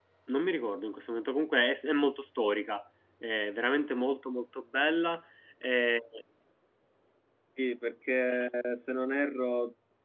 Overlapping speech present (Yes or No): No